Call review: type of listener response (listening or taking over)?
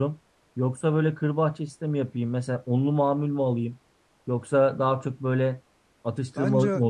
listening